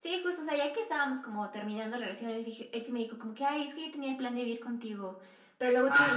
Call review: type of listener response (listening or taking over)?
listening